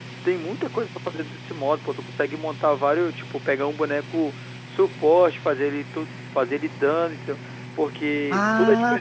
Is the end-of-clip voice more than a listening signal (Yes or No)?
Yes